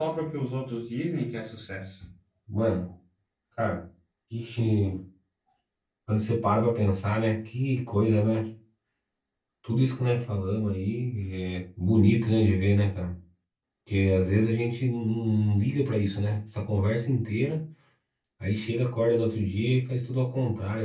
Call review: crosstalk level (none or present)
none